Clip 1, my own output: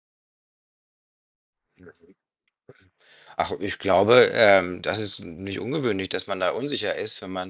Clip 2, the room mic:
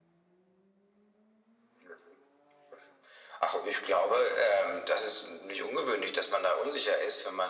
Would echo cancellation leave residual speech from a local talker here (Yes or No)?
No